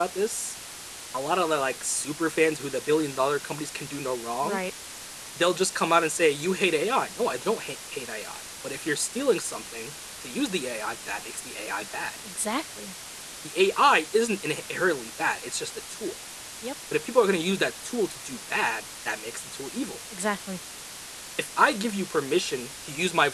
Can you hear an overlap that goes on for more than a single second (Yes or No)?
No